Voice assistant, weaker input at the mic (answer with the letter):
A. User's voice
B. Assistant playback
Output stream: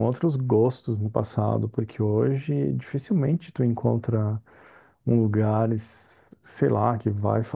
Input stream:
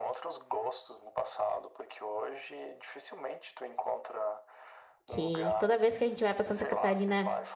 B